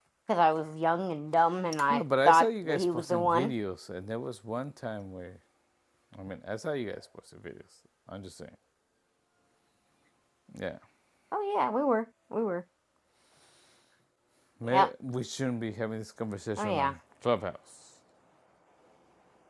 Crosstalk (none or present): present